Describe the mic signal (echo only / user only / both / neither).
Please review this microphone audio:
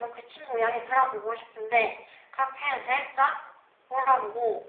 echo only